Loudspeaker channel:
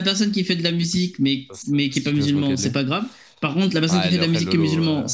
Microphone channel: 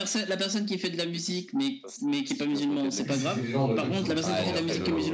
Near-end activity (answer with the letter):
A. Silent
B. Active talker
B